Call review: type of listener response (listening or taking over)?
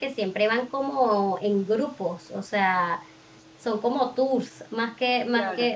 listening